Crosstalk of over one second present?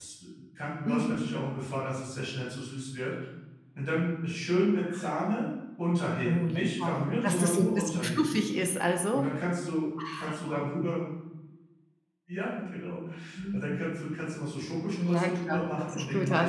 Yes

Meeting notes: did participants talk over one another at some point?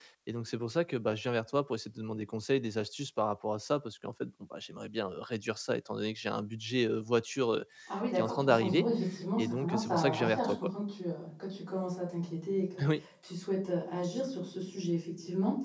Yes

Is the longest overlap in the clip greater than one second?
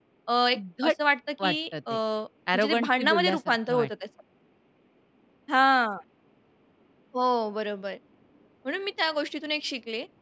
Yes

